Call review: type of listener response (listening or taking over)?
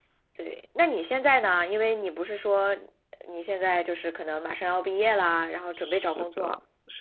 taking over